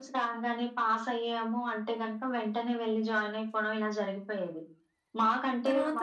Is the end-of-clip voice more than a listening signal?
No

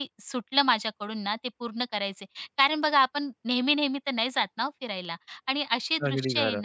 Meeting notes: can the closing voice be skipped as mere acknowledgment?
Yes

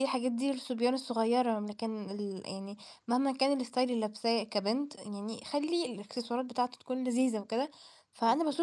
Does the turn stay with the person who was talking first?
Yes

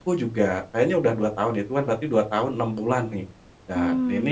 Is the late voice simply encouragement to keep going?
Yes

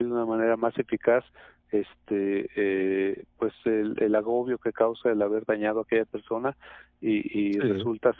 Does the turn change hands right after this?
No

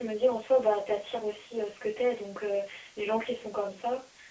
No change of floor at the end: Yes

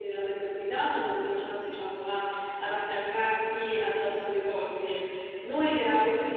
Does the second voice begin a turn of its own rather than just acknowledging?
No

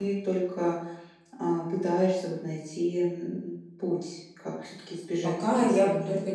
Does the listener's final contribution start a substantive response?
Yes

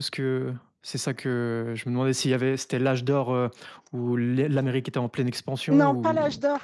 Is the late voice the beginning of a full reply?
Yes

